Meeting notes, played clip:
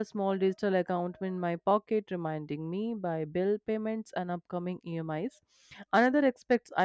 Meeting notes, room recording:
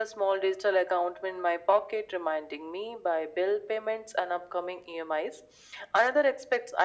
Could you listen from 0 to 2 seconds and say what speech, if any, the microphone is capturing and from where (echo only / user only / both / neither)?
echo only